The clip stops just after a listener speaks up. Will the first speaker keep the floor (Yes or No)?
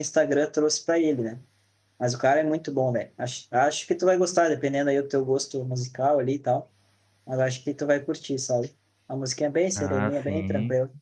No